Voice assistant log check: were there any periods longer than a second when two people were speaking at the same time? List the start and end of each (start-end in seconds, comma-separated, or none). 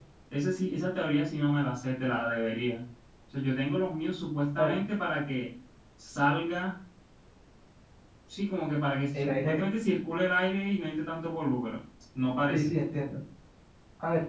none